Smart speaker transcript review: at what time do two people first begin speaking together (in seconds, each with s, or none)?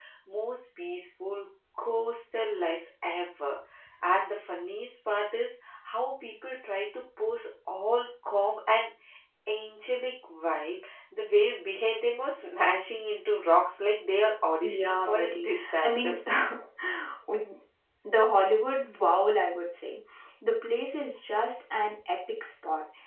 14.6 s